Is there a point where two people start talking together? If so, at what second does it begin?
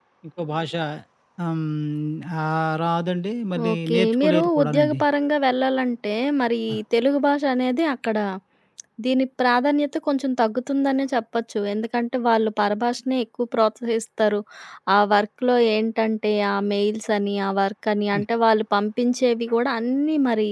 3.6 s

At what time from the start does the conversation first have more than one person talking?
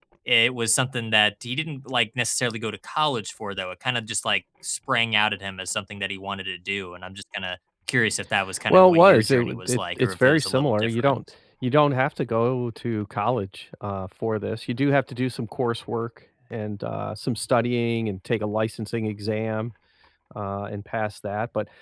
8.7 s

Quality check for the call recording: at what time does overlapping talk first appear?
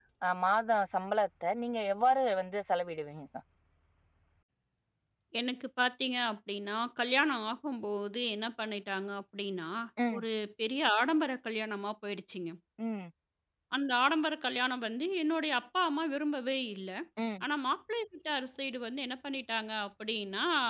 none

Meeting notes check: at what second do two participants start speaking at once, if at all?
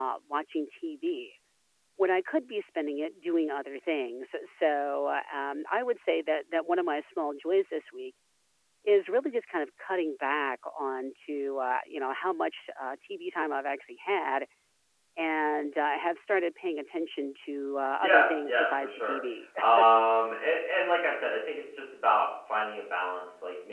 18.0 s

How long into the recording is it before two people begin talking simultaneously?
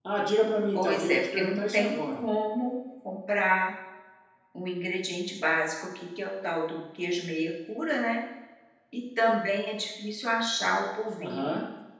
0.7 s

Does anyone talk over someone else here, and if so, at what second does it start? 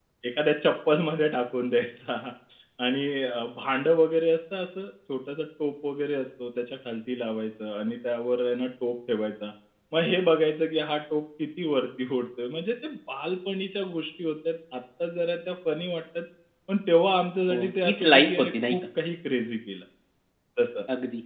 17.5 s

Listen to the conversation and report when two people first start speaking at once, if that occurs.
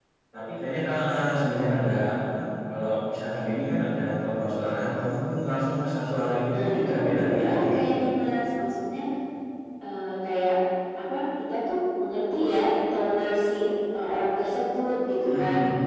6.5 s

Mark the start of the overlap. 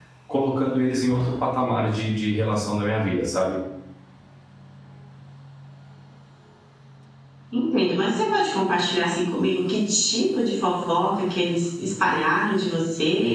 none

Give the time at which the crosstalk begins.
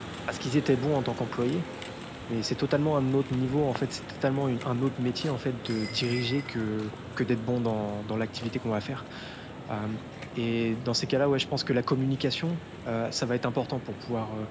none

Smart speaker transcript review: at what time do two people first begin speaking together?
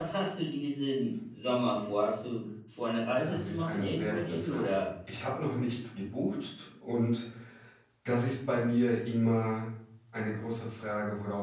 3.2 s

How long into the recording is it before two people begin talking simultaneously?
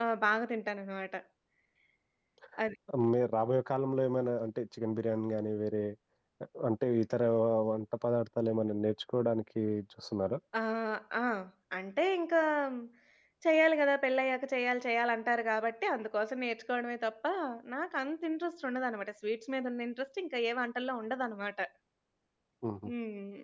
none

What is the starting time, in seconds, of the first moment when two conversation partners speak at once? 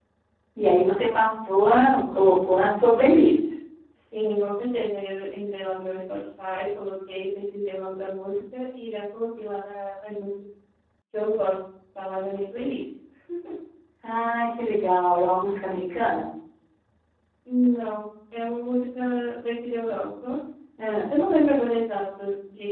none

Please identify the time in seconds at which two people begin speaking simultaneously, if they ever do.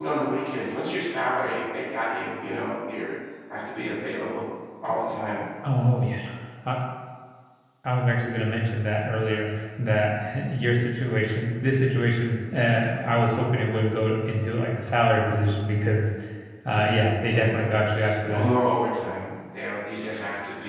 16.7 s

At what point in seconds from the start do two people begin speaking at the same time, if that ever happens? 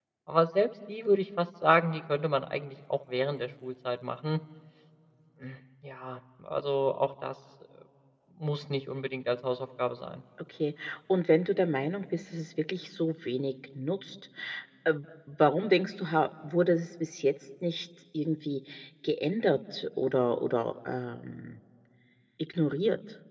none

